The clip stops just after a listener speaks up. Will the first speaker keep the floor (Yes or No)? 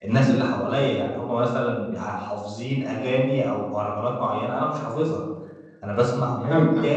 Yes